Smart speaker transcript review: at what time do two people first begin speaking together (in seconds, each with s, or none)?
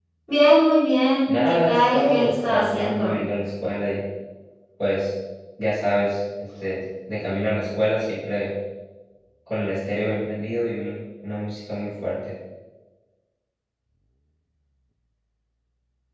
1.3 s